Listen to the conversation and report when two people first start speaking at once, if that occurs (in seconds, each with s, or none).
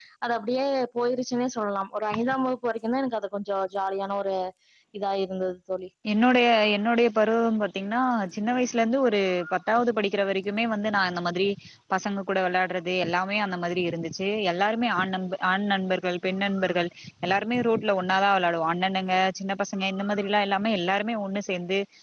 none